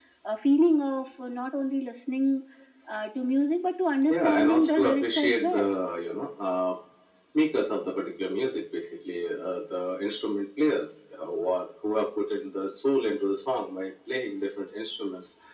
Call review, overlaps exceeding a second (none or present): present